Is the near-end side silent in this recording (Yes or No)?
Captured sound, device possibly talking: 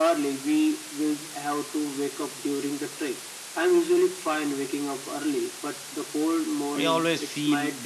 No